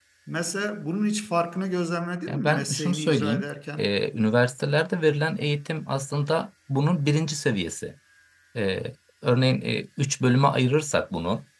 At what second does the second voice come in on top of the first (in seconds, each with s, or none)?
2.3 s